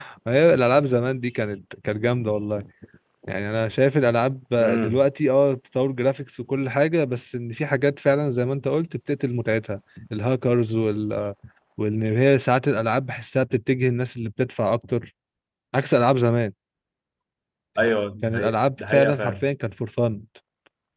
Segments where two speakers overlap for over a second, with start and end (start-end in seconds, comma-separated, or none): 18.2-19.5